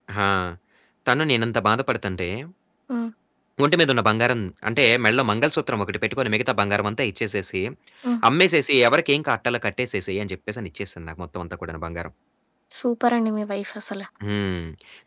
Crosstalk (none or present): none